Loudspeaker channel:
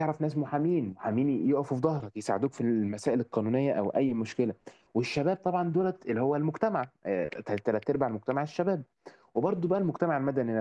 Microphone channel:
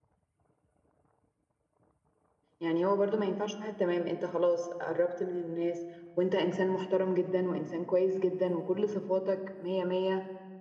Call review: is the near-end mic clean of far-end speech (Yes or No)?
Yes